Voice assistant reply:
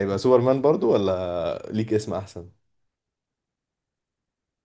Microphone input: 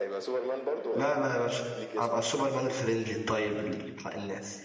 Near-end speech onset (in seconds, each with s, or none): 0.9 s